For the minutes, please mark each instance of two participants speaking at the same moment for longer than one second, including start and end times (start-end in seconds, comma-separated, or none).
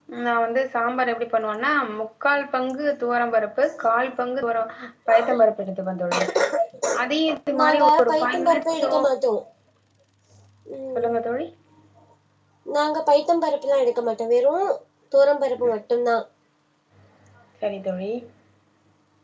7.6-8.9